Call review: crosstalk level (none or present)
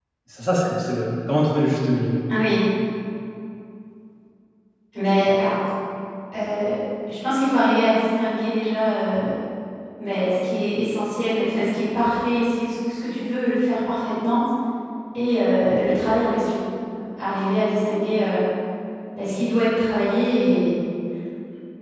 none